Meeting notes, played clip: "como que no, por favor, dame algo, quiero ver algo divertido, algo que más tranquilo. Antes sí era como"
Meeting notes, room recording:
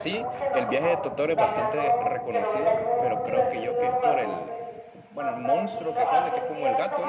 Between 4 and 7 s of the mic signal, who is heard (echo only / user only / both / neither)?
both